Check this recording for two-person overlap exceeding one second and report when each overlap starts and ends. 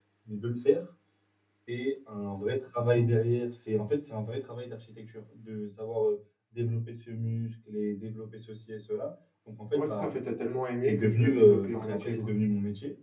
10.9-12.3

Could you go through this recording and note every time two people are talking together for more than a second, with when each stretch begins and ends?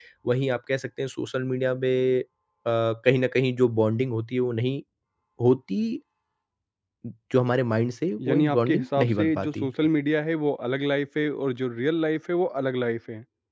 8.3-9.7

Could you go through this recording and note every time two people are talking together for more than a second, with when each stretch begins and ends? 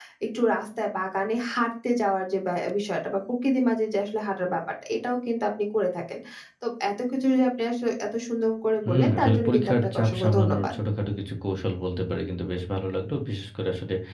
8.8-10.8

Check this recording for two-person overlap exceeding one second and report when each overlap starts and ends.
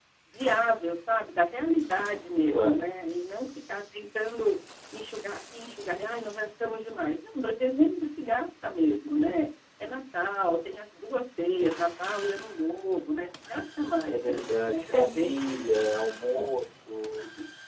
14.1-15.6

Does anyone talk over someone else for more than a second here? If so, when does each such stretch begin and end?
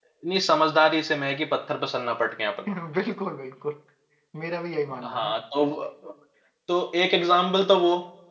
none

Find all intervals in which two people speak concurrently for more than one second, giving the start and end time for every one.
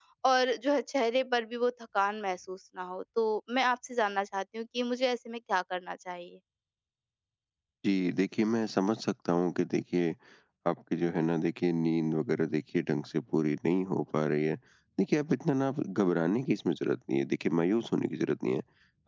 none

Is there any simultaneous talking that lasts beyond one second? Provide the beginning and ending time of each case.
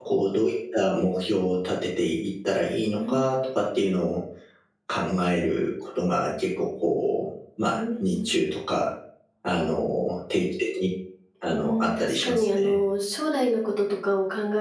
11.5-12.8

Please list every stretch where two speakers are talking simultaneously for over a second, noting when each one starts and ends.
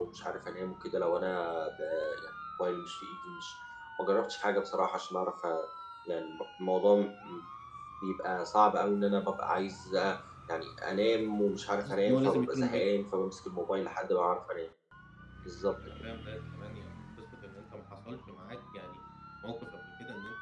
11.8-13.0

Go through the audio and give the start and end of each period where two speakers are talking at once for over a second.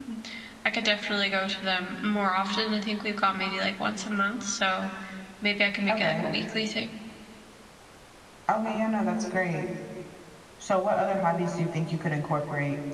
none

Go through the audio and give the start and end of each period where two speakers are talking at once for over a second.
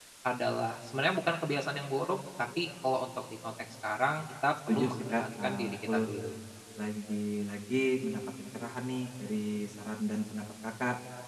4.7-5.9

